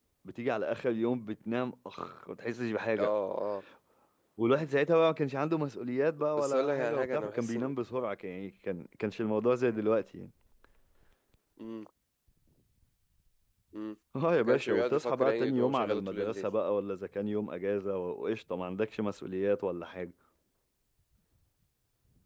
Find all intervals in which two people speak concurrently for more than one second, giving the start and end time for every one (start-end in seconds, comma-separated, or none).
6.4-7.7, 14.4-16.5